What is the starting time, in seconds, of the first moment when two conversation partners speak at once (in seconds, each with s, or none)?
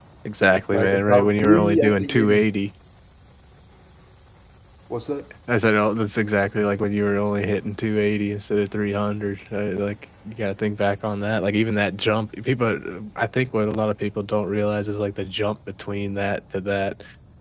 0.7 s